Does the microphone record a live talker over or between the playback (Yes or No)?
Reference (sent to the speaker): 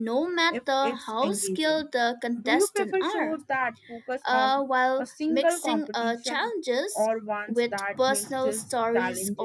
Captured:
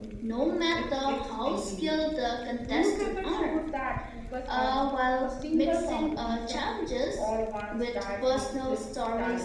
No